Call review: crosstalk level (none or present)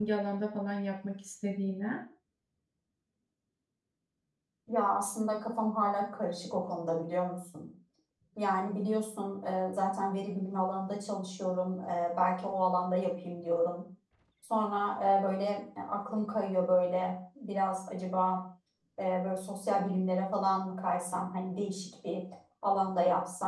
none